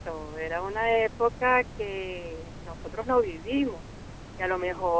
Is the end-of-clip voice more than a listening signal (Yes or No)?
No